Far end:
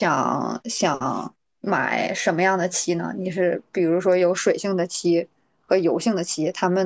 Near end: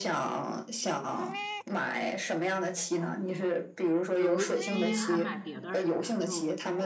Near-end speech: present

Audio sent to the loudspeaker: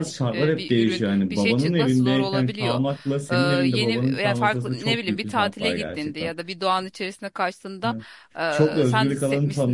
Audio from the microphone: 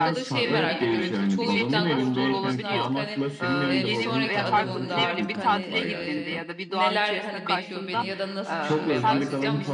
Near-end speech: present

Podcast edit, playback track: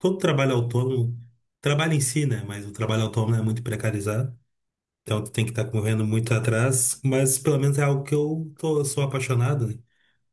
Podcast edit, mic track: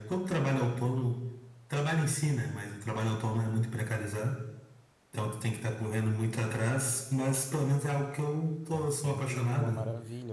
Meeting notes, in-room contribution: present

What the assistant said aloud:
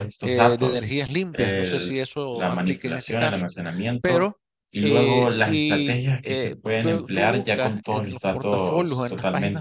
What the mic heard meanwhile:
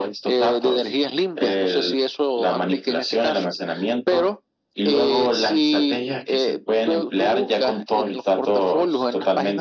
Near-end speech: none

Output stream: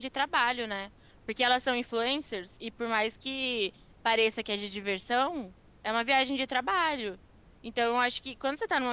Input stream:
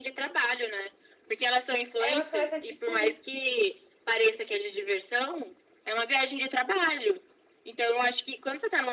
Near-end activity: present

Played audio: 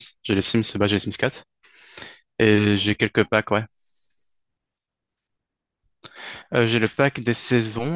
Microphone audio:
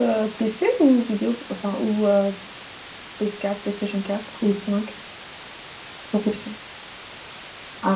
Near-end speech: present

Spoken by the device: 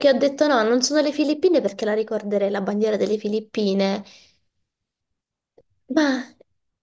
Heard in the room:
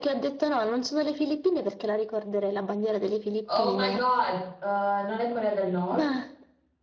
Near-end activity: present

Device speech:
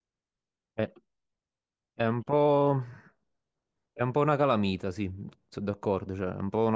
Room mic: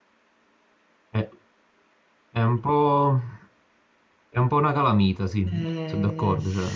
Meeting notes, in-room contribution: present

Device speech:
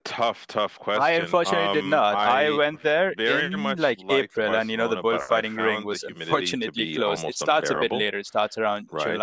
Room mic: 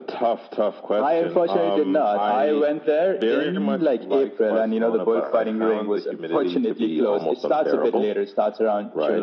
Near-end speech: none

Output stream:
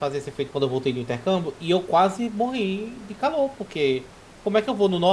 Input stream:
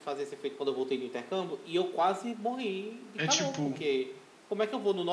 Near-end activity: present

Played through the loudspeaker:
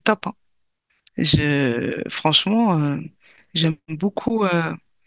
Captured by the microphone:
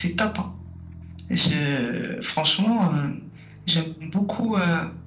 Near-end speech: none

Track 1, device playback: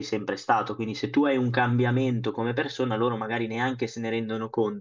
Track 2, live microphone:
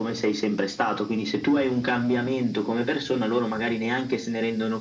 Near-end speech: none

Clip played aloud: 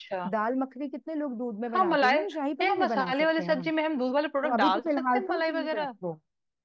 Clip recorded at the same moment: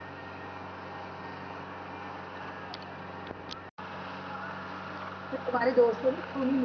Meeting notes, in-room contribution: present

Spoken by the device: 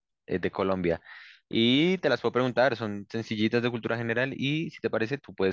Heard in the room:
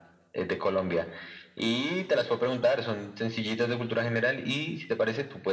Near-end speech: none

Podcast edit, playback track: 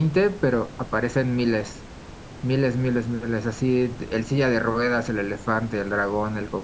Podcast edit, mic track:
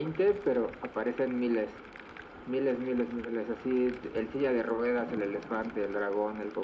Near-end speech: none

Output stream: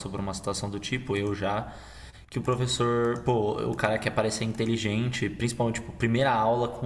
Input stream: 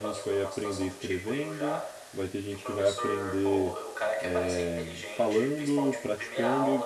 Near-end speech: present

